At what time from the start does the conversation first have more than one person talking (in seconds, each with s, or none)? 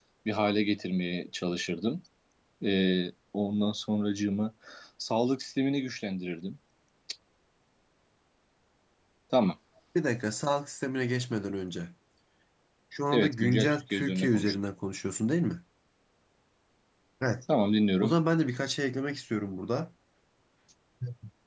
13.1 s